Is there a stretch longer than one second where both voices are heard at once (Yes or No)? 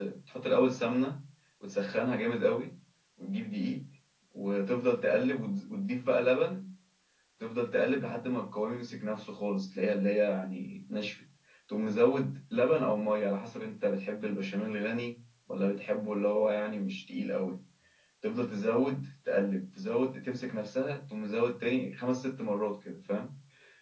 No